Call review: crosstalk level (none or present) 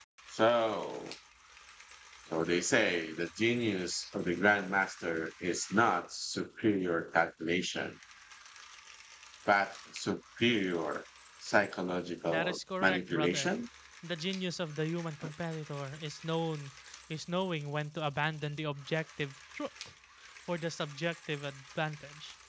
present